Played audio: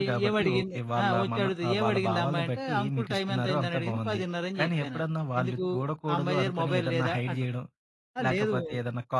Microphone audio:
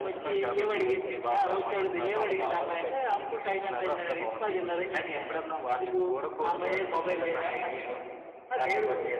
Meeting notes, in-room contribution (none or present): none